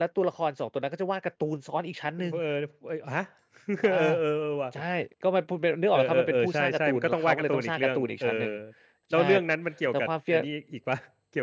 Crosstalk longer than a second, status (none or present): present